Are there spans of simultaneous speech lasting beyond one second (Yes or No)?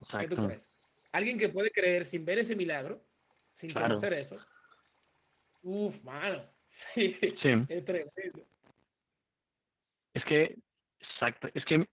No